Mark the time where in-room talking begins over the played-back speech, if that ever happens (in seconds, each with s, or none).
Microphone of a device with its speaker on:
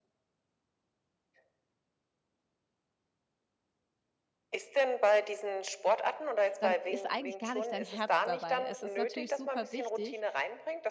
6.6 s